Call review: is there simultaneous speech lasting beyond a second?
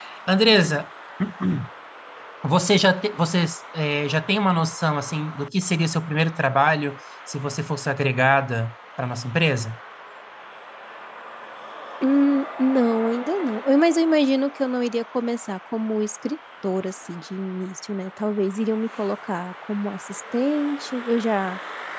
No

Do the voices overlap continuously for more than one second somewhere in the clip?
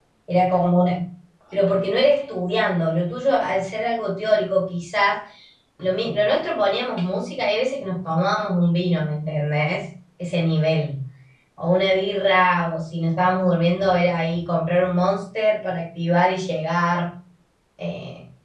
No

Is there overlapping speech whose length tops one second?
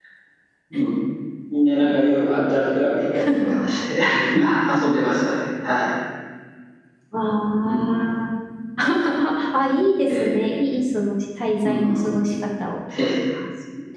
No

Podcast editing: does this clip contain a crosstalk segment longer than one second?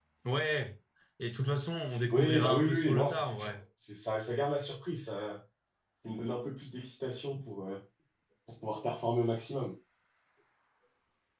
Yes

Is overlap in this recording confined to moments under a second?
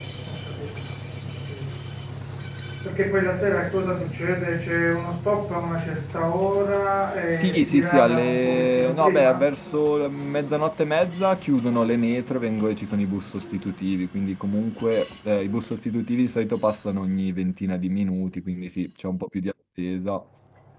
No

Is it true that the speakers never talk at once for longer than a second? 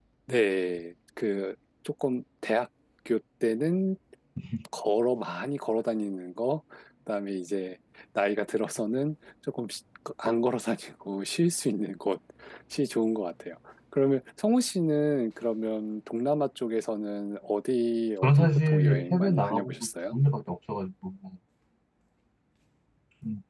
No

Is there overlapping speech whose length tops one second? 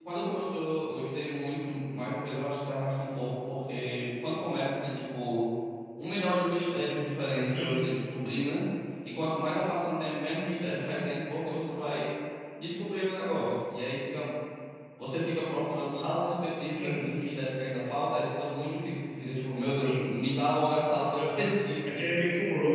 No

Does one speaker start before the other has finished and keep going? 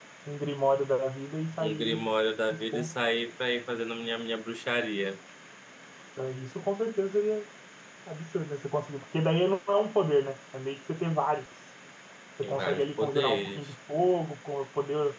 Yes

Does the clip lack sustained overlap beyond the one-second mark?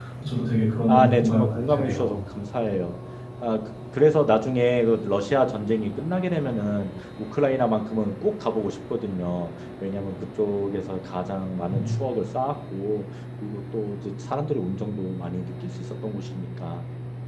No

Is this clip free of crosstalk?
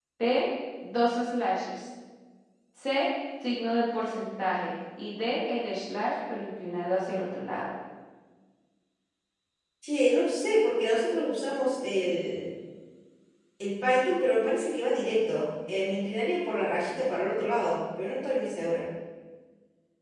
Yes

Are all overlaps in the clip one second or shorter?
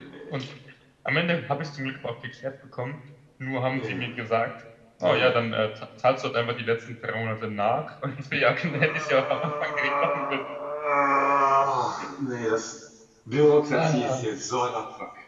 No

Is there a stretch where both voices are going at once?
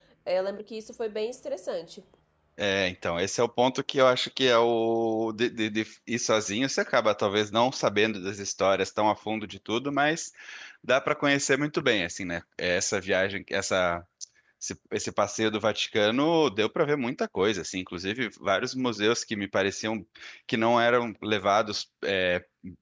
No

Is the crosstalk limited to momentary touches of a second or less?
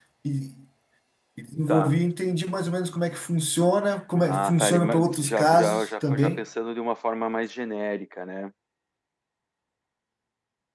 No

